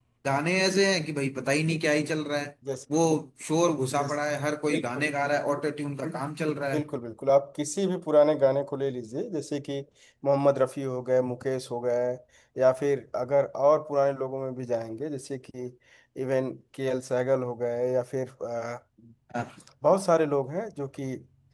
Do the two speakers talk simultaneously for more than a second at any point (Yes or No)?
No